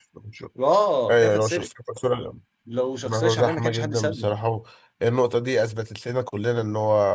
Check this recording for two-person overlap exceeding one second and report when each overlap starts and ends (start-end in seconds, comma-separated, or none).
3.0-4.3